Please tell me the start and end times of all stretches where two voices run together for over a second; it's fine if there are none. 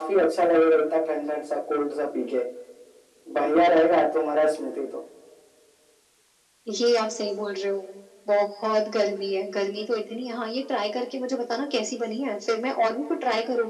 none

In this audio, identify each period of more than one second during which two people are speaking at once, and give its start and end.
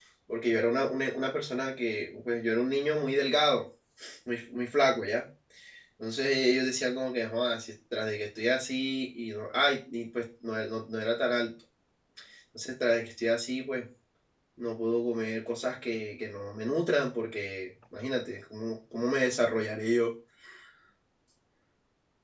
none

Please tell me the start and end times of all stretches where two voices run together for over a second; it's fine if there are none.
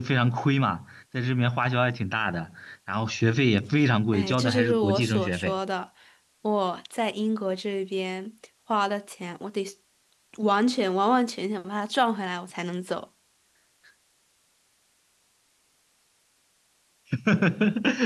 4.1-5.5

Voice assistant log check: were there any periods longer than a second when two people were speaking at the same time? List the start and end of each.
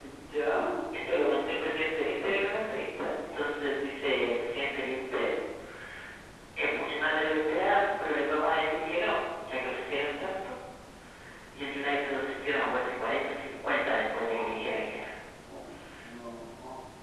none

